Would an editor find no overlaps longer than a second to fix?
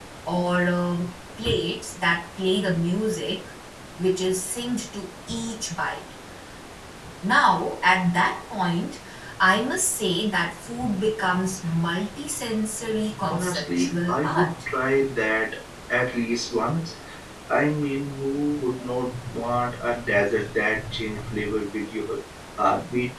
No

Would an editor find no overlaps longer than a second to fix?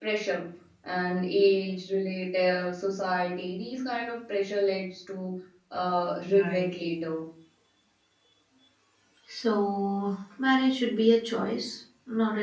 Yes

